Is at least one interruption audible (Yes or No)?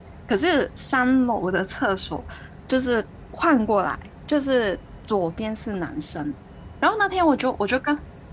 No